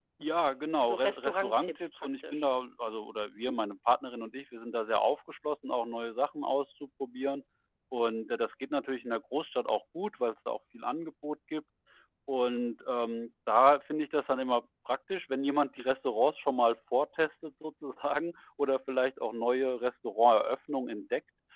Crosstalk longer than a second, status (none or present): present